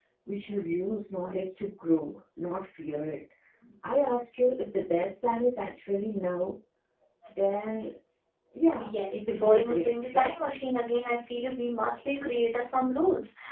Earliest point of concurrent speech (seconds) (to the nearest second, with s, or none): 9 s